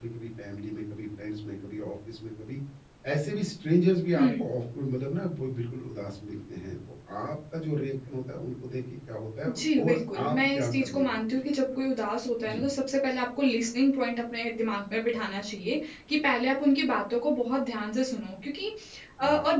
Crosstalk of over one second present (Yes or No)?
Yes